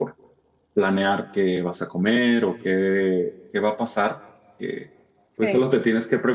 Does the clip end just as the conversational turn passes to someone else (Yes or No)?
No